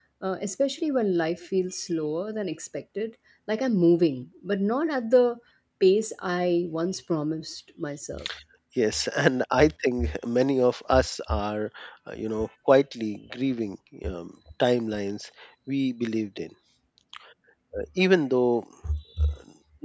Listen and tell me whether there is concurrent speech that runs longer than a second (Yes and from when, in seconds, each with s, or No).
No